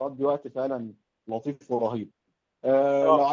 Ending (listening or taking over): listening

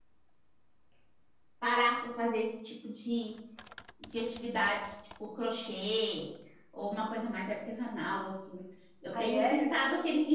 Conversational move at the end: listening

